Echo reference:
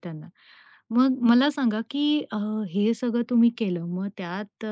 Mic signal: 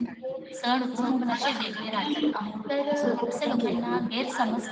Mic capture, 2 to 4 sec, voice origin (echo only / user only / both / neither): both